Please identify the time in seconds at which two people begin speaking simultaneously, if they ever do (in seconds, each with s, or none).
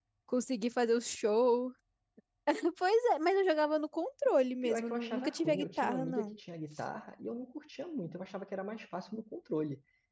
4.6 s